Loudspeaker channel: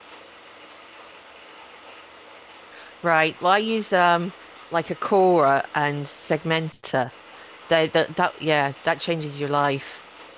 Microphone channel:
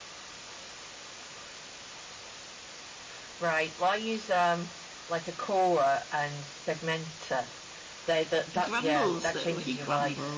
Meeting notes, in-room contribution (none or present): present